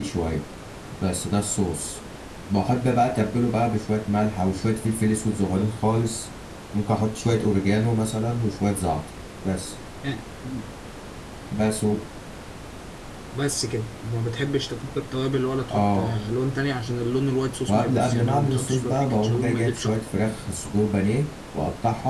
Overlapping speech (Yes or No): Yes